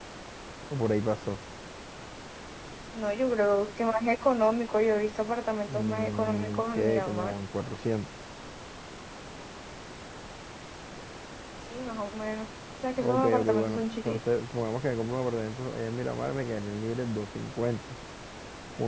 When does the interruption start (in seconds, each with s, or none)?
5.7 s